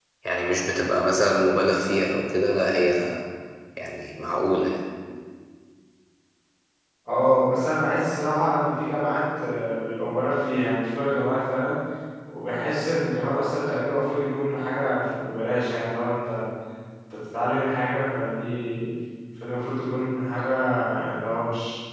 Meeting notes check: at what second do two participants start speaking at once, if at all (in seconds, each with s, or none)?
none